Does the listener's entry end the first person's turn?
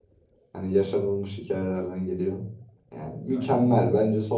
No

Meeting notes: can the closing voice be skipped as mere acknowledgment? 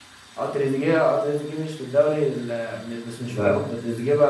Yes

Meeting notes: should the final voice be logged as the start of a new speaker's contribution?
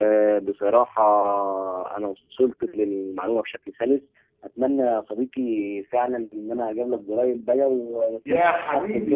Yes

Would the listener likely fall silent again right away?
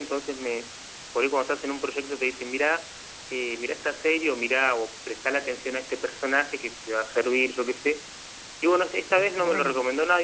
Yes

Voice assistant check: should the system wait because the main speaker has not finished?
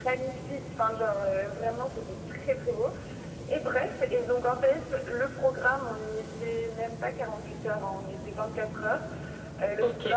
Yes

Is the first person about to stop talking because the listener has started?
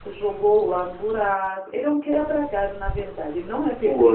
Yes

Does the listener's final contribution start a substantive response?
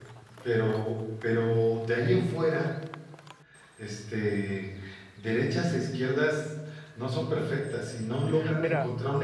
No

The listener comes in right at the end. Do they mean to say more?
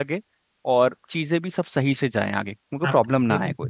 Yes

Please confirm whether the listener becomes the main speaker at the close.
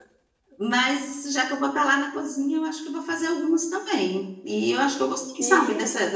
No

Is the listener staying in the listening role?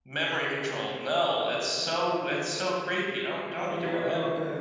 No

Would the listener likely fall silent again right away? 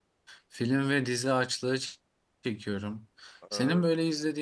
Yes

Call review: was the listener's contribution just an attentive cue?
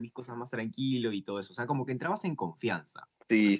No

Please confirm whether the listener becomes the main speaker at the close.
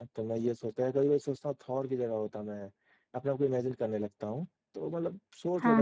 No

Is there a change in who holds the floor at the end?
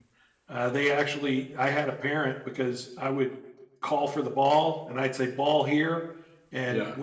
No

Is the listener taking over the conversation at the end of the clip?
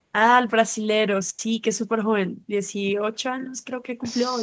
Yes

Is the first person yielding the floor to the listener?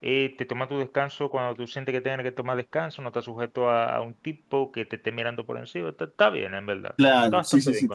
Yes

